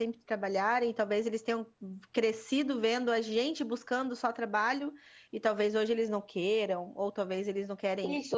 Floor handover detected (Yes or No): Yes